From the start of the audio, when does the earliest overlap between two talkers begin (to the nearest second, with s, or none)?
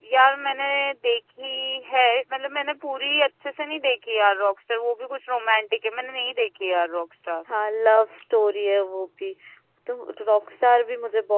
none